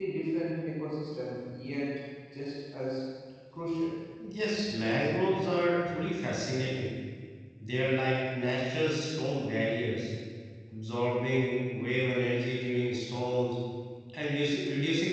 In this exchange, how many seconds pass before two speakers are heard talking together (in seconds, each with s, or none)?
none